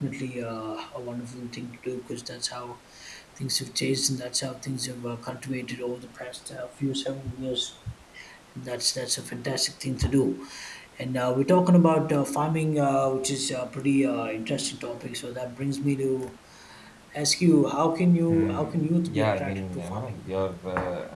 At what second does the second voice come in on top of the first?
18 s

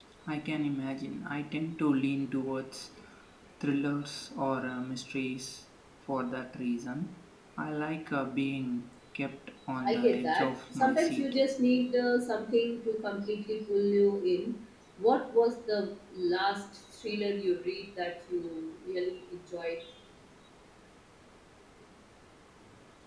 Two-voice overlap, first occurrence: 10 s

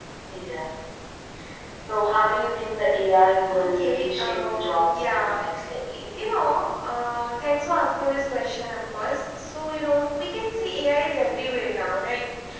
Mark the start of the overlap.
3 s

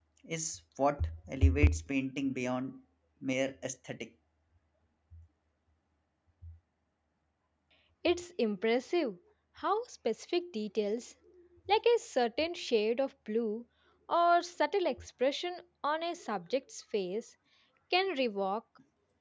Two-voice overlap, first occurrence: none

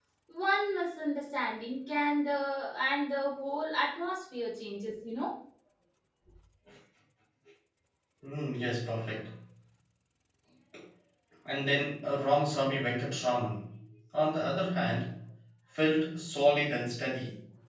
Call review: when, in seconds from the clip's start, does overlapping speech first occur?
none

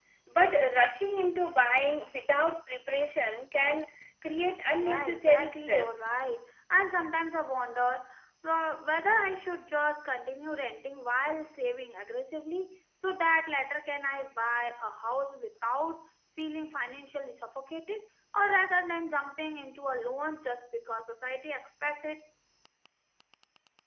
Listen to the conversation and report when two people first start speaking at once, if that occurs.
5 s

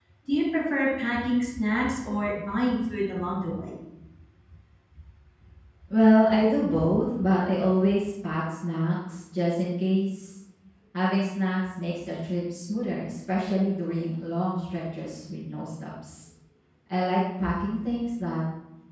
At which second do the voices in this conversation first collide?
none

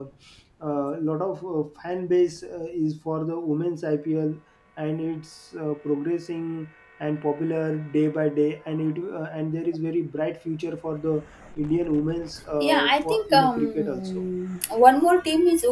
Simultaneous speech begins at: 13 s

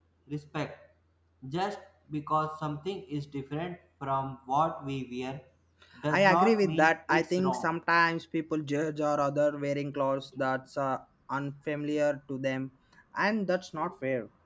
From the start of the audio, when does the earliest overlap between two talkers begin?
6 s

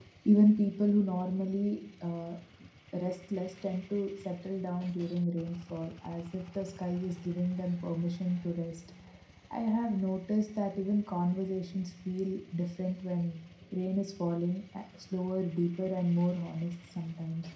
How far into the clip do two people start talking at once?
none

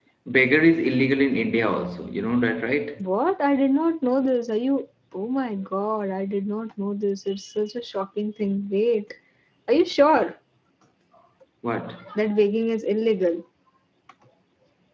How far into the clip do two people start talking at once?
none

